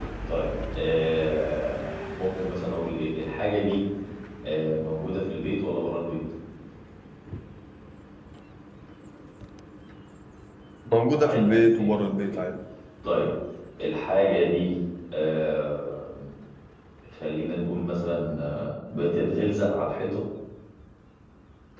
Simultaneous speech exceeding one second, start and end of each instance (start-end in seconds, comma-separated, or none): 11.2-12.4